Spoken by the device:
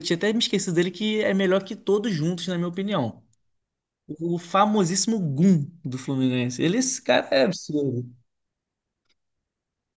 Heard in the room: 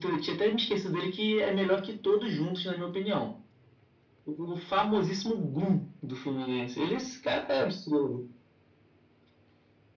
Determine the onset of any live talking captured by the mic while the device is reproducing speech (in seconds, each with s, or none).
none